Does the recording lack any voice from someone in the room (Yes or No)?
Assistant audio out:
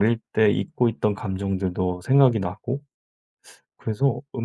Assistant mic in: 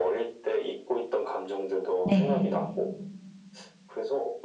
No